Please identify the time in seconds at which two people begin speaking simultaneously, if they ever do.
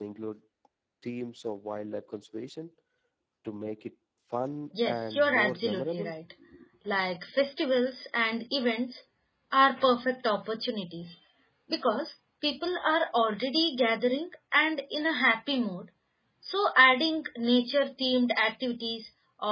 4.7 s

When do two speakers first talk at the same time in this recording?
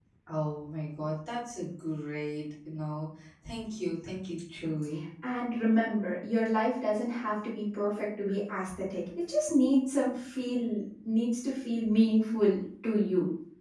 none

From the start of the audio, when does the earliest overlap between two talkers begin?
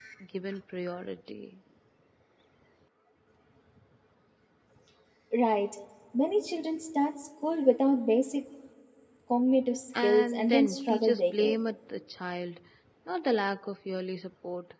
10.0 s

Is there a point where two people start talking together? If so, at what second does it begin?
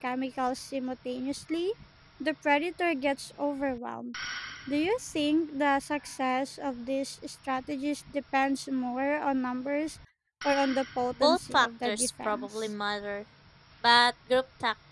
11.2 s

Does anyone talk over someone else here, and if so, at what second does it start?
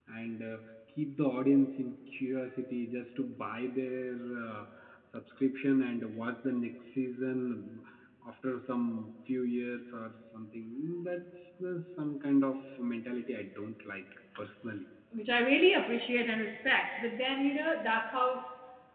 none

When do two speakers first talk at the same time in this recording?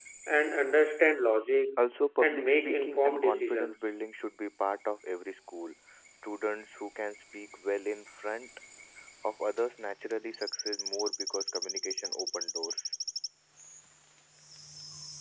2.2 s

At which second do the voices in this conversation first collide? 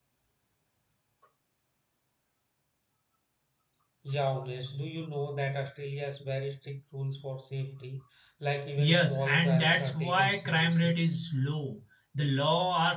8.8 s

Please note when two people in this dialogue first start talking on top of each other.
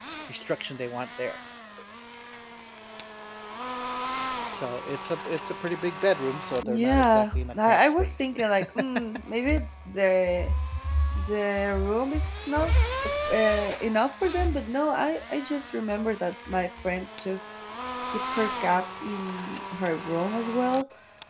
6.6 s

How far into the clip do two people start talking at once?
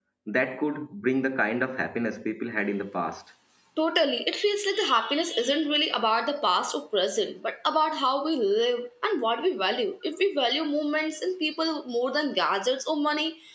none

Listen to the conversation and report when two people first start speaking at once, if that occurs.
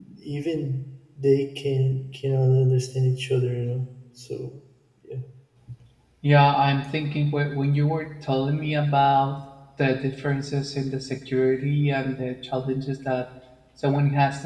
none

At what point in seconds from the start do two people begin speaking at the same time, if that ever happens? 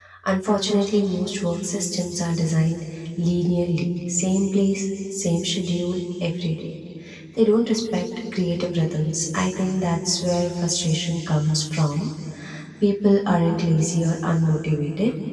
none

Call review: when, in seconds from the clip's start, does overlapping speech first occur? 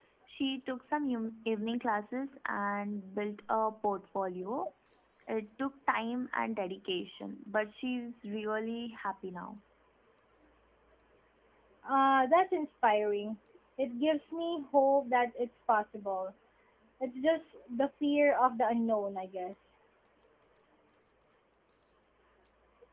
none

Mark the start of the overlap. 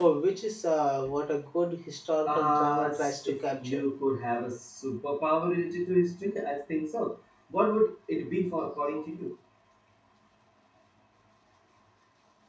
2.2 s

